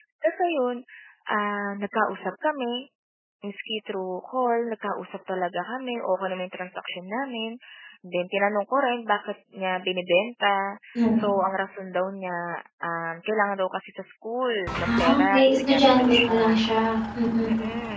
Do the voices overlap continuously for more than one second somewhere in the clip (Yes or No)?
Yes